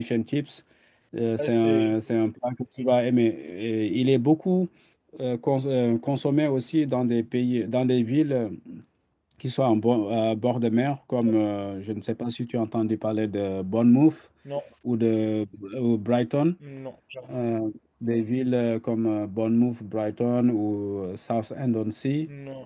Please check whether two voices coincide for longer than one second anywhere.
No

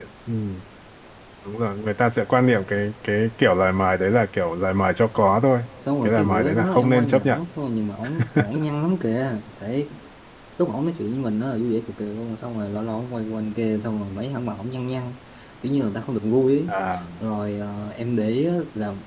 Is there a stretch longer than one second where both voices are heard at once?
Yes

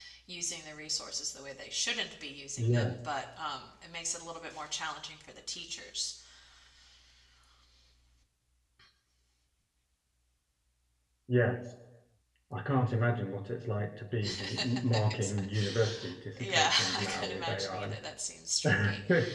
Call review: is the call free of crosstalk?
No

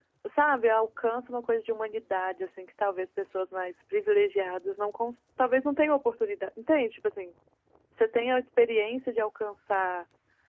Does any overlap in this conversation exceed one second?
No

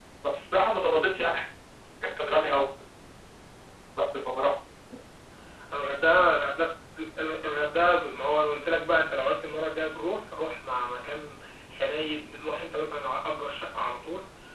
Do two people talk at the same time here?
No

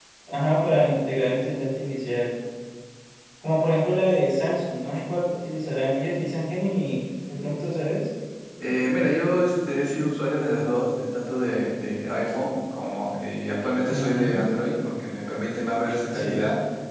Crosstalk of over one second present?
No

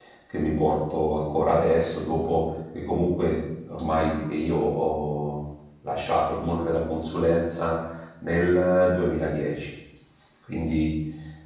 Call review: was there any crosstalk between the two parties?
No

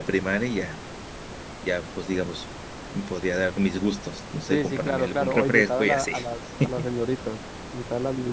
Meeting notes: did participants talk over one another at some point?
Yes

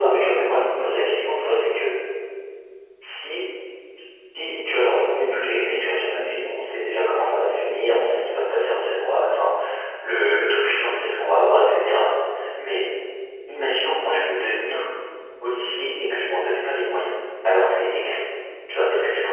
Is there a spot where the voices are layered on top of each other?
No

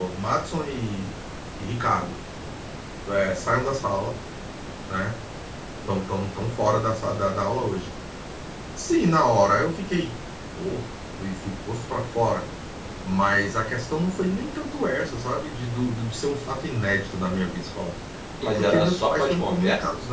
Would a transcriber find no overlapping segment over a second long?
No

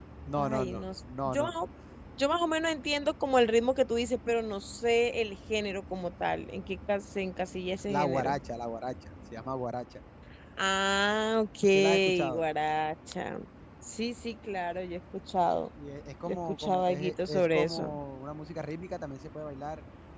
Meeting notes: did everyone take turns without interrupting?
No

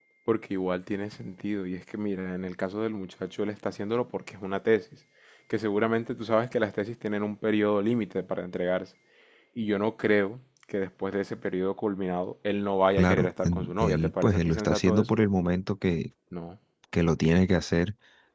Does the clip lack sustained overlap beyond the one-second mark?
No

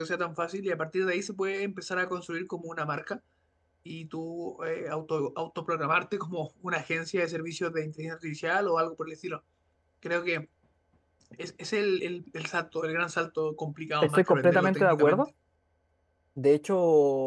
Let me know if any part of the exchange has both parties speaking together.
Yes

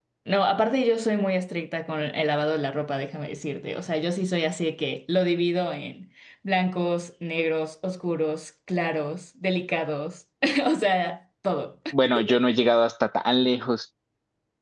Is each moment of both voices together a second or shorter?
Yes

